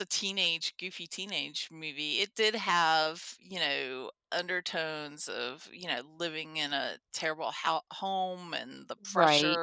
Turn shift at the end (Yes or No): No